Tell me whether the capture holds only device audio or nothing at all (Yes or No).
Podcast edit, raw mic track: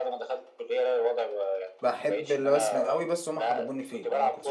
No